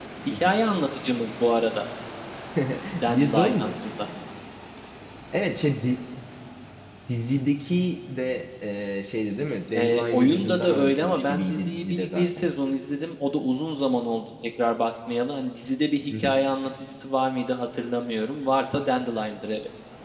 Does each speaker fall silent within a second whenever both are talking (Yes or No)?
No